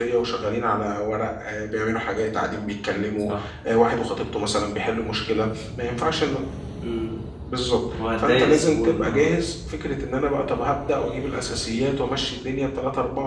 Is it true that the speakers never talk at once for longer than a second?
No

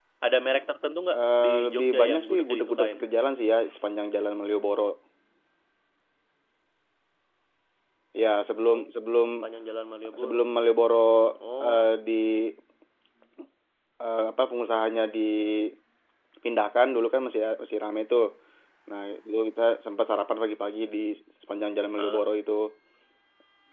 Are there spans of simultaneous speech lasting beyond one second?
Yes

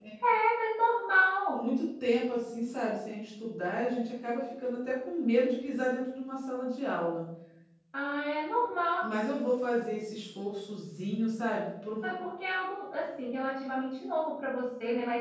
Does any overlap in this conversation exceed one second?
No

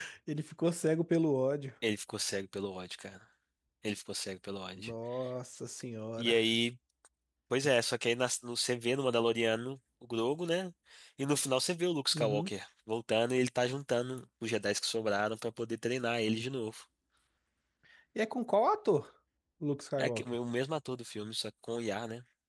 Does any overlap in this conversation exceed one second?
No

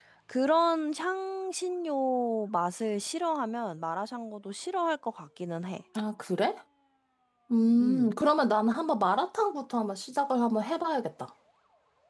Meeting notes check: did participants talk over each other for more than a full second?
No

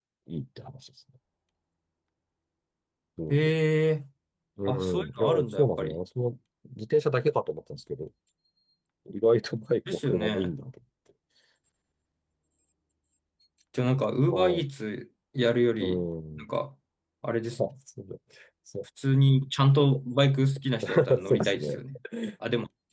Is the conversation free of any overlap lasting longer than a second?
No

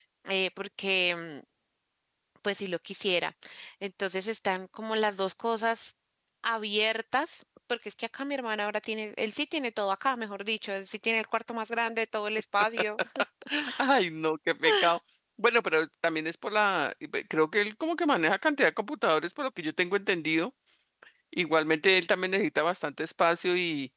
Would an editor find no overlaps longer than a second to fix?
Yes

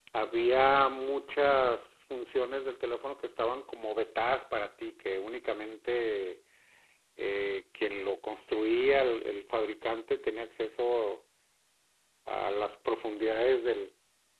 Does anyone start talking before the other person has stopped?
No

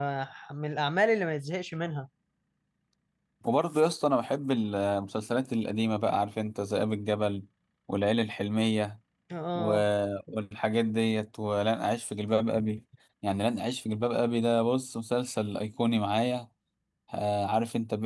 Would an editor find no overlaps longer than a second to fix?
Yes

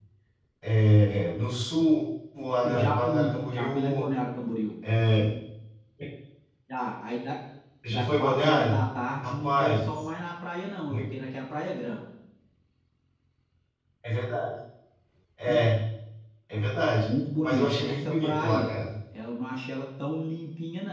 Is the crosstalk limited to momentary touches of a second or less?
No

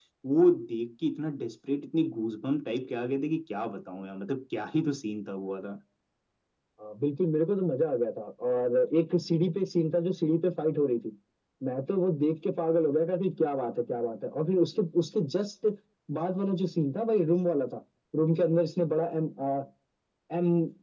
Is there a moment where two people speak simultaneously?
No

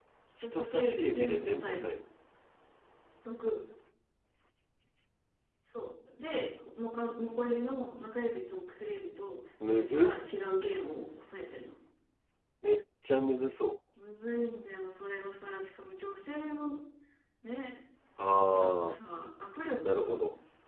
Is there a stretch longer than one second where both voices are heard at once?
Yes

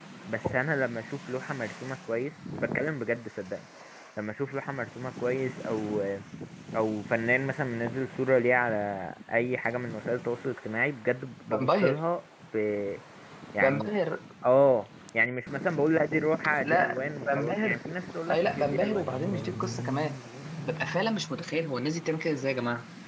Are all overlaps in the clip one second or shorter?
No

